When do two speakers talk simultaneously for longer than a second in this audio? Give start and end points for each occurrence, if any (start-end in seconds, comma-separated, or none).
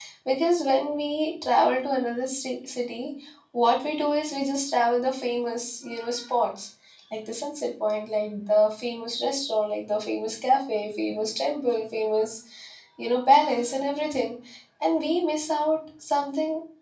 none